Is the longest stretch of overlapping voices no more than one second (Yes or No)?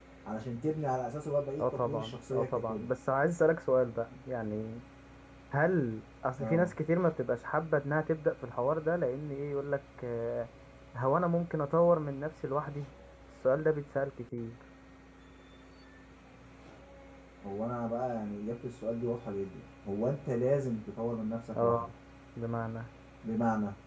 No